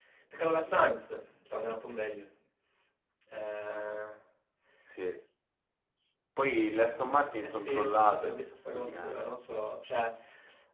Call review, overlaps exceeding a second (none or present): present